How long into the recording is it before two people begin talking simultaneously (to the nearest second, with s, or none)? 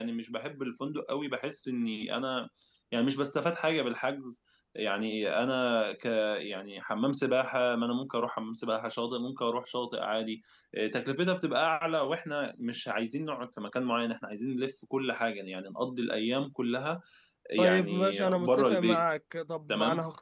18 s